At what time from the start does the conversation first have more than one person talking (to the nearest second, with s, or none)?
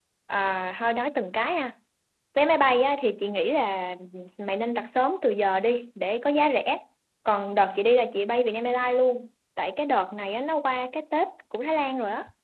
none